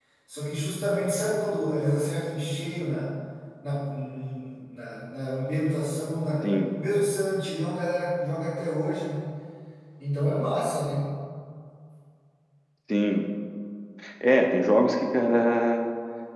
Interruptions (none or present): none